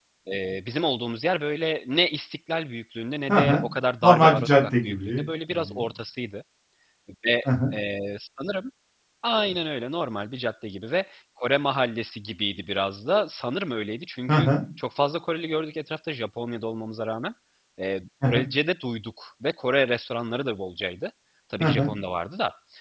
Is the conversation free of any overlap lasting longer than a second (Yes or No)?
No